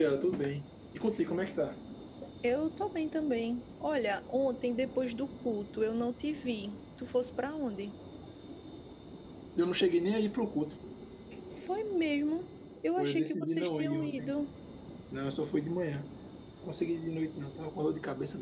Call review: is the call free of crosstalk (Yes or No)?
No